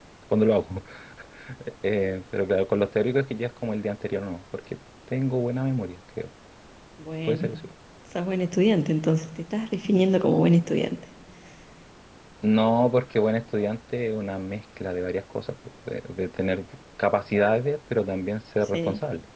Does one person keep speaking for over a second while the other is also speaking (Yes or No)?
No